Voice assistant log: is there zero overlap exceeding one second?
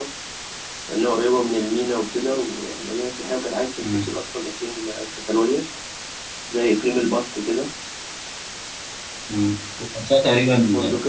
Yes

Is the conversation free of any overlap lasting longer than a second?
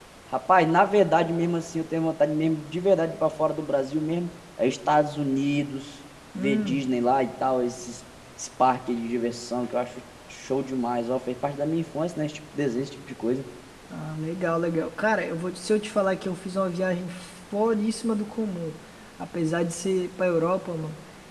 Yes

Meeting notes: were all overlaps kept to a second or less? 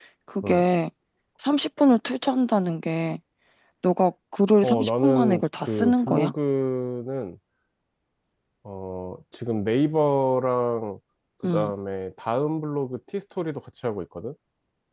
No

